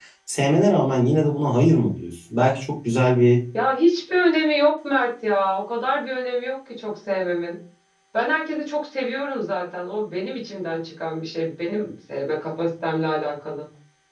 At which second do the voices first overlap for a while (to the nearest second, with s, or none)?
none